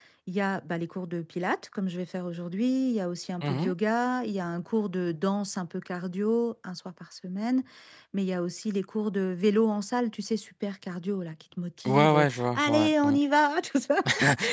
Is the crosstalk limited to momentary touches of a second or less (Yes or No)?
No